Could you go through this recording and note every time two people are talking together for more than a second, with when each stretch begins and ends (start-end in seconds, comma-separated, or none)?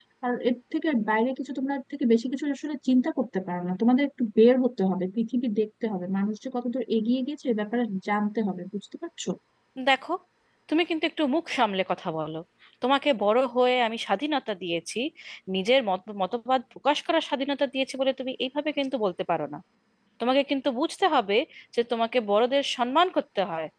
none